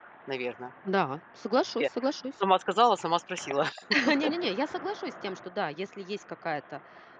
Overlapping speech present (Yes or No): No